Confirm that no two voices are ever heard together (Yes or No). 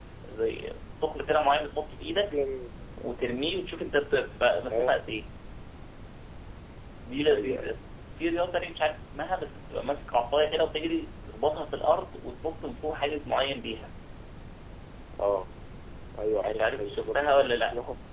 No